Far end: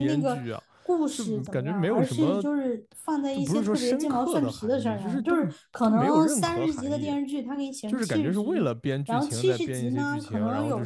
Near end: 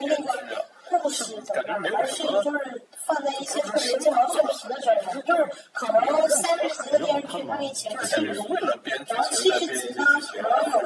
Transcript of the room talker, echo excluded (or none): 感觉好看吗？还是